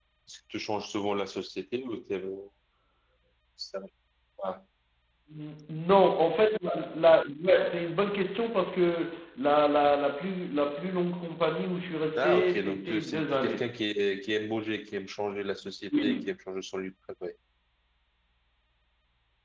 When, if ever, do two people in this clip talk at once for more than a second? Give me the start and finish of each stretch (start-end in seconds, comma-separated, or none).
12.2-13.6